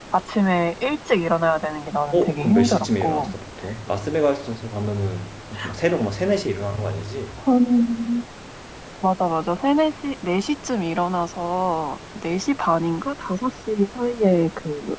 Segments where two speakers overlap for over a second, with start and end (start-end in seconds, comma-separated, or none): 2.1-3.3